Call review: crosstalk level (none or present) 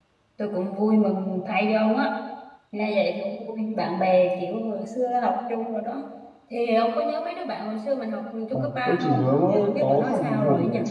present